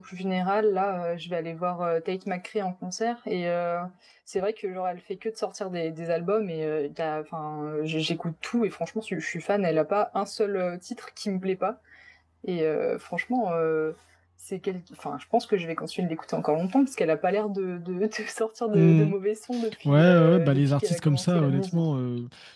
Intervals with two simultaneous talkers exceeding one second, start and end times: 19.9-21.8

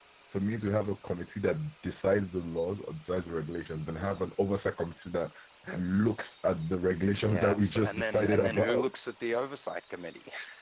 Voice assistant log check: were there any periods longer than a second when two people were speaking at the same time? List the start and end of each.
7.3-8.9

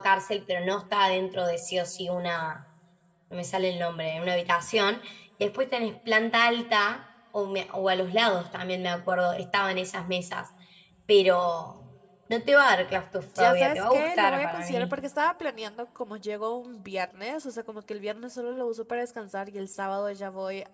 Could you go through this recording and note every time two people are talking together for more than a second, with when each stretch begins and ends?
13.4-14.9

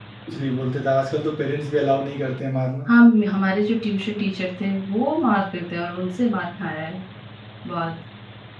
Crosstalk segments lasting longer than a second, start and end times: none

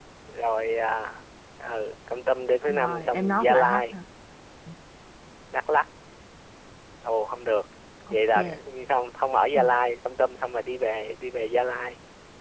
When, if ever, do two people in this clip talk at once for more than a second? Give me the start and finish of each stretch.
2.7-3.9

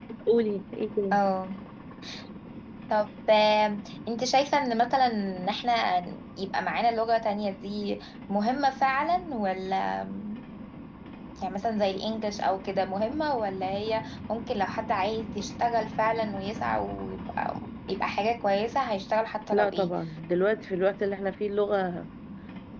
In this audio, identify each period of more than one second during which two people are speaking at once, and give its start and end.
none

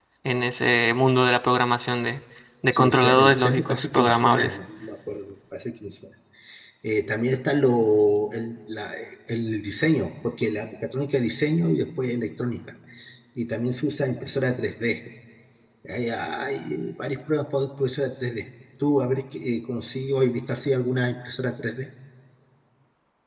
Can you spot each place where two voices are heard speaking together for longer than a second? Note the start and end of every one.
2.7-4.6

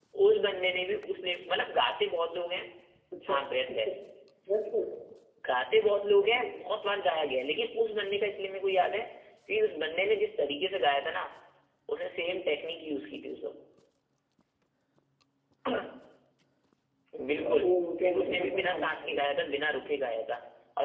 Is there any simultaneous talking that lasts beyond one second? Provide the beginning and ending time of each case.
18.0-19.2

